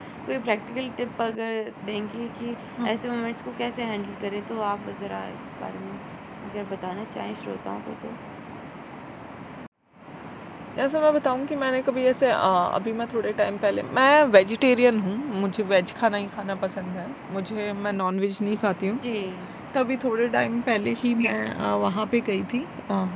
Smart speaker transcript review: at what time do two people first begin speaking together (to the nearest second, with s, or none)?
none